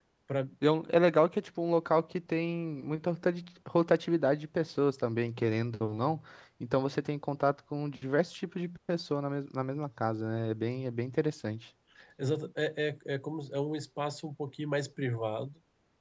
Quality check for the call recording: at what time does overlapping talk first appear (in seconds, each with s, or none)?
none